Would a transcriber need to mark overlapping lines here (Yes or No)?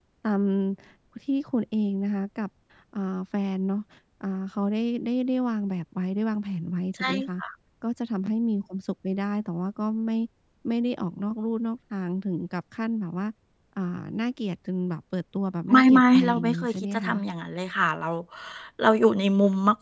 Yes